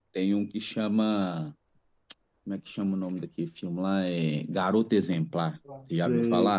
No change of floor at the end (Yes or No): No